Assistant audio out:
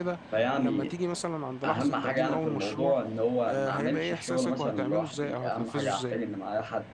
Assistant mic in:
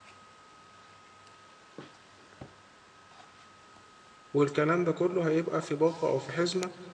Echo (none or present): none